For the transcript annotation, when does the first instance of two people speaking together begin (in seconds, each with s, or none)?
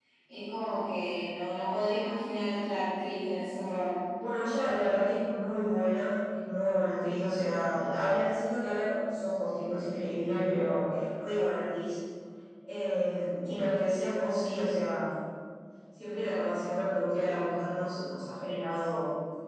none